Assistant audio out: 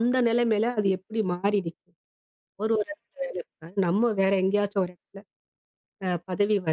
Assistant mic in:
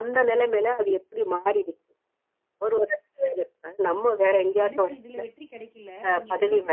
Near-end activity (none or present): present